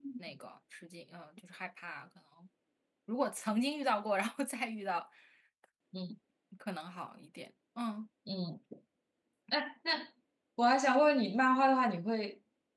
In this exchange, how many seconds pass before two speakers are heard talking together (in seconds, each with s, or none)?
none